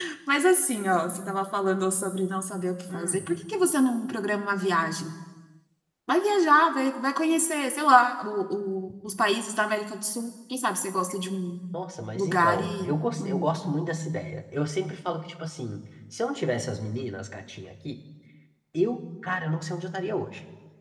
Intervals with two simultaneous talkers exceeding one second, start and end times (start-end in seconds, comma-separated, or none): 12.1-13.6